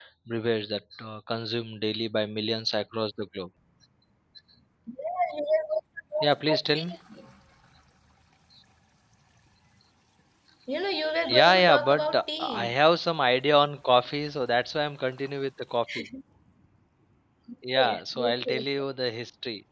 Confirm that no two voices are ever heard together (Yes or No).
No